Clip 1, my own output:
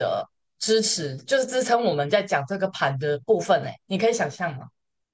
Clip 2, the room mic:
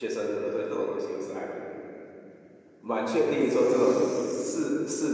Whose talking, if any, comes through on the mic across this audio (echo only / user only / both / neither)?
user only